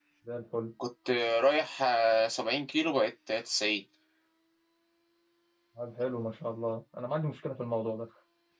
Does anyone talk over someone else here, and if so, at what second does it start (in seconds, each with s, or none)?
none